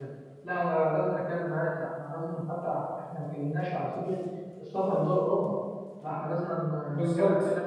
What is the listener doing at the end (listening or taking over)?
listening